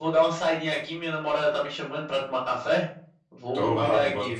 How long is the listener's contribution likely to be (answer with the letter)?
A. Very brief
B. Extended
B